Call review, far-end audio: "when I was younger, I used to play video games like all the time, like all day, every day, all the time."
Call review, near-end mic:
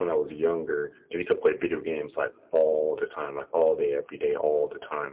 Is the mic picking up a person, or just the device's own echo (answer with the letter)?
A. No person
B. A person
A